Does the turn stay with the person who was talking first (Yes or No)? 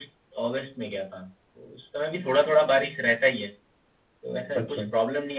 Yes